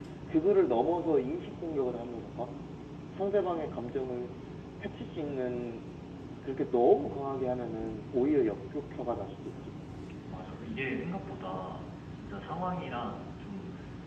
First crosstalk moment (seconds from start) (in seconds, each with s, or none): none